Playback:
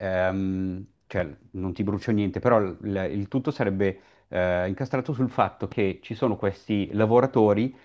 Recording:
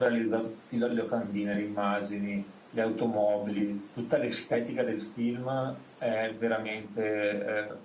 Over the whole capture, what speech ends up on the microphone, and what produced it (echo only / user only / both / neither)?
user only